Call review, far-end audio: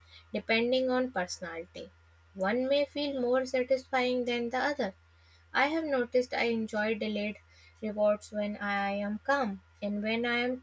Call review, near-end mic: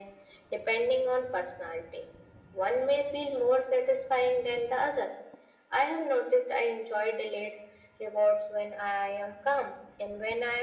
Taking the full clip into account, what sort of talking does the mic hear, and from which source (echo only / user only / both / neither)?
echo only